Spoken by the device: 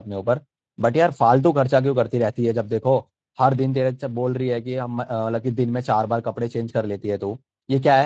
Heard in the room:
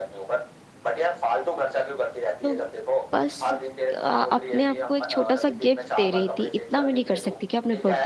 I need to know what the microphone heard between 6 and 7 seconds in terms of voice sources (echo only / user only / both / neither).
both